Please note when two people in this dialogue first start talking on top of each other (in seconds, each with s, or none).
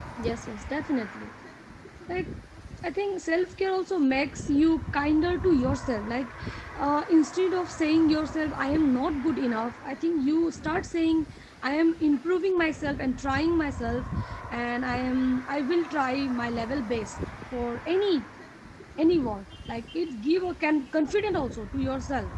none